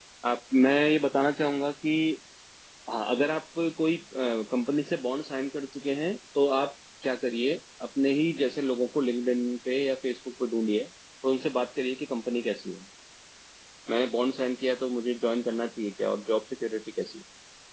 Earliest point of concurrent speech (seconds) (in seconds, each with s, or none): none